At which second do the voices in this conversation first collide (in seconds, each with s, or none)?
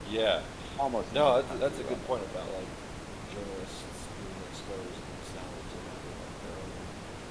1.1 s